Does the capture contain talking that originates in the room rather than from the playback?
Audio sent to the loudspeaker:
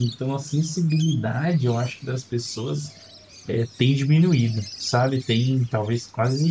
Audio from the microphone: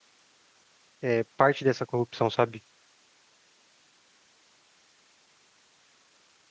Yes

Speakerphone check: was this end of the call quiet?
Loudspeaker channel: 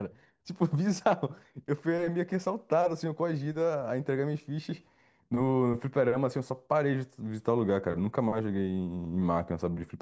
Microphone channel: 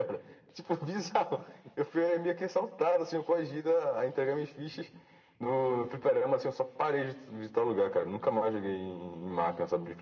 Yes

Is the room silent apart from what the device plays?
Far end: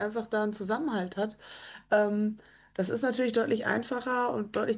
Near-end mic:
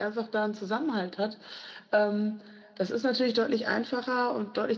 Yes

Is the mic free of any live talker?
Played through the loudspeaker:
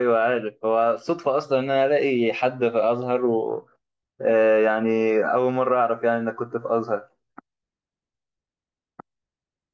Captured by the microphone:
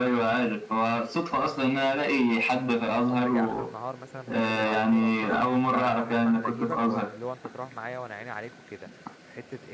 No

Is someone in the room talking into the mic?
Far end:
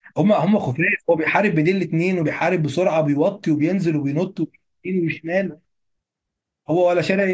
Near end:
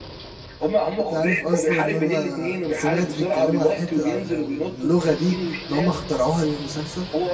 Yes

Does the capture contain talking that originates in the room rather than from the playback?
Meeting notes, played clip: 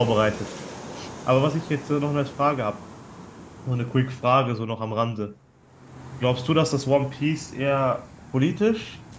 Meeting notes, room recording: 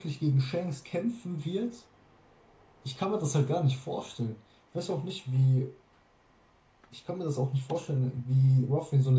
Yes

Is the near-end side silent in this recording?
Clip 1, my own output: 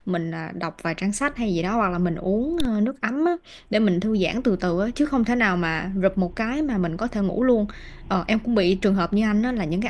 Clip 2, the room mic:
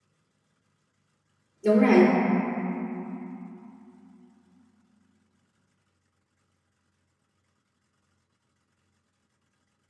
No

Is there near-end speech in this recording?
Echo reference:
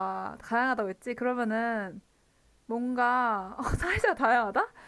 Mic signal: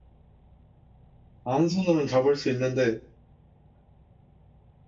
Yes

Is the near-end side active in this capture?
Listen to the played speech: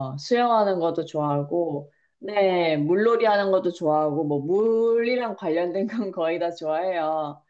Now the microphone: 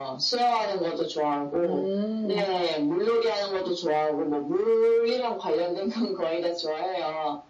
Yes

